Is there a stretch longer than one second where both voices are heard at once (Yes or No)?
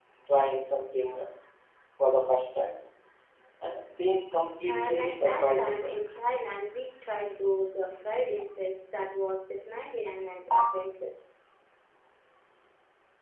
Yes